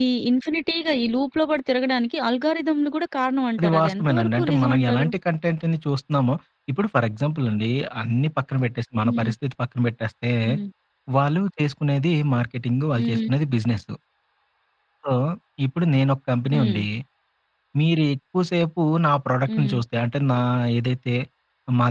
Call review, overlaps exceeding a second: present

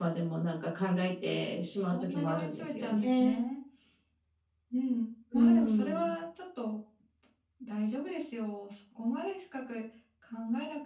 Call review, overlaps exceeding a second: present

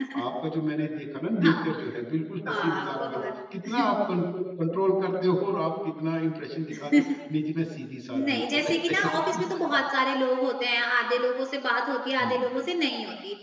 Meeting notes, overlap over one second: present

